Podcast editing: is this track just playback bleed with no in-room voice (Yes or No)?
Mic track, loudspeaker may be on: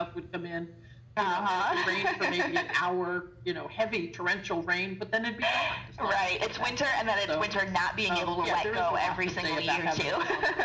Yes